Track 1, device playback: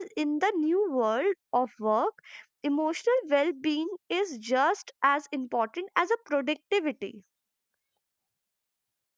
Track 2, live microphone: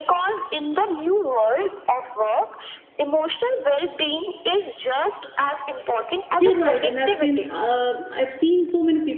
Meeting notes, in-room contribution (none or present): present